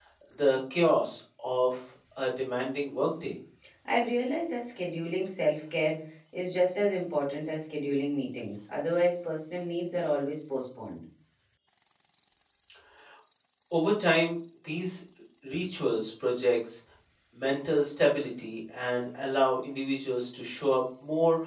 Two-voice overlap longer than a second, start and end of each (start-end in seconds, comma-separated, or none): none